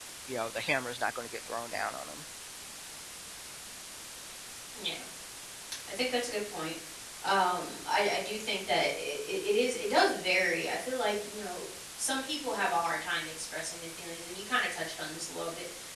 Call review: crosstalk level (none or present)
none